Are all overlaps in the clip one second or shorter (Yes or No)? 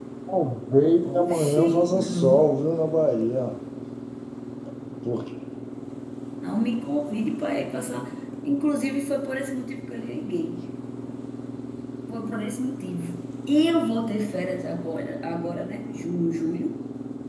No